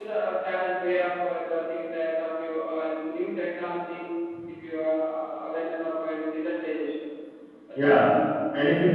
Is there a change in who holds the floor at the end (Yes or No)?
Yes